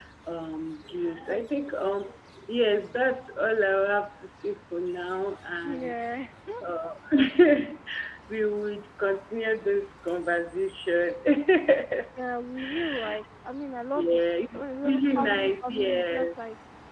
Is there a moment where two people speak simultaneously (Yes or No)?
Yes